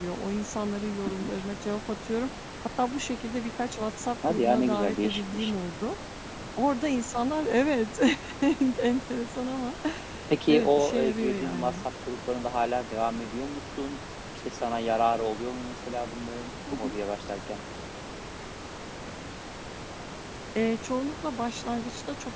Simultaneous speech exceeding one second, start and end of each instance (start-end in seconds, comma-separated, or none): 4.3-5.5, 10.5-11.8